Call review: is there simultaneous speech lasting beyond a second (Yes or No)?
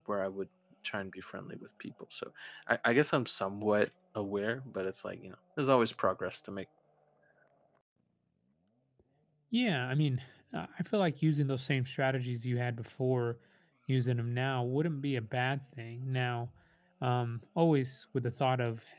No